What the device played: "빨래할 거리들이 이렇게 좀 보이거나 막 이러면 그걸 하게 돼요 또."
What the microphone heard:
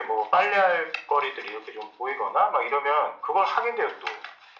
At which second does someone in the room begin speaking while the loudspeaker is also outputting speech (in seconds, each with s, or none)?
none